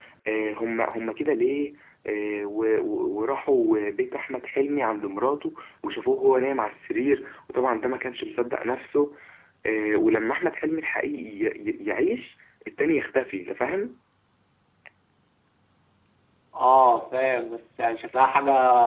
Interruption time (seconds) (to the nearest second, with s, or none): none